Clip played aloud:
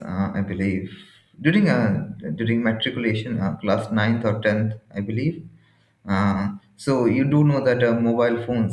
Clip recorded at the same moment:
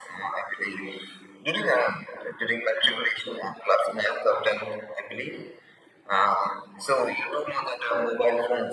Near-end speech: none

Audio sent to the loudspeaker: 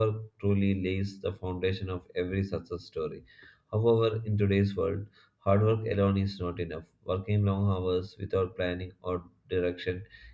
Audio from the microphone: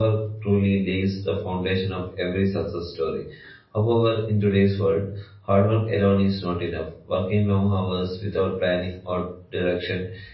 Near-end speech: none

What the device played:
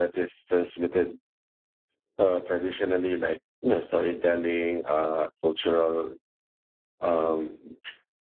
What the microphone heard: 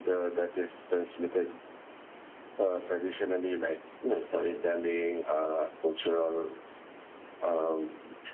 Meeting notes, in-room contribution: none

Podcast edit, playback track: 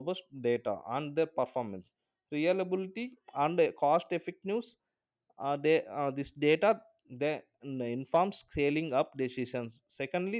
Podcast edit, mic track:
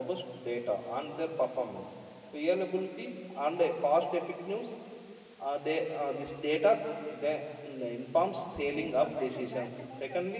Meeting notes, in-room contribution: present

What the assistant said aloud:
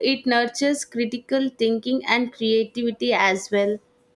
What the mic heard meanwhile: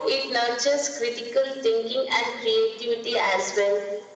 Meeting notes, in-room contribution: none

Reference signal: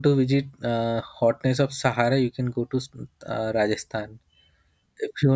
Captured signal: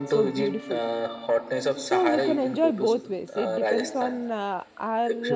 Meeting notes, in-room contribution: present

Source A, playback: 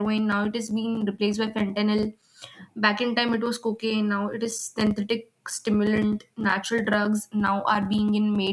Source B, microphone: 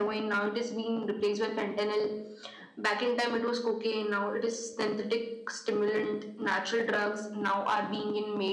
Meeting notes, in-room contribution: none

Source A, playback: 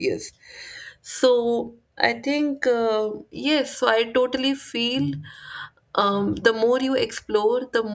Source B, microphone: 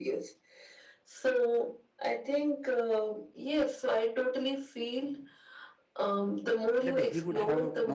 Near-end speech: present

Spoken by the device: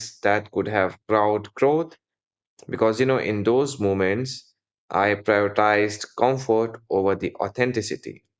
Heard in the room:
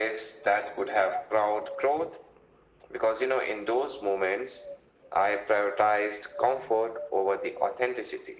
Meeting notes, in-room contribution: none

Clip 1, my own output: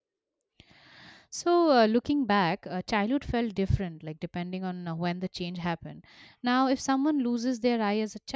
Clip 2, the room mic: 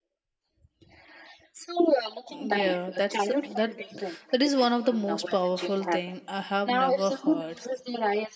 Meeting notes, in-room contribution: present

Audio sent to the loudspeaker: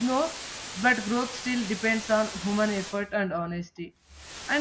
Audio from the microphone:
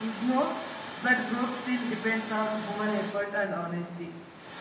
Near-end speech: none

